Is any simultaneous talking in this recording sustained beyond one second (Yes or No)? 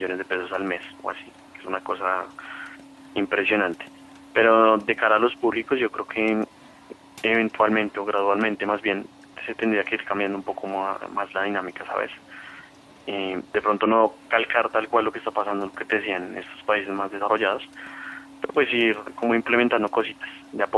No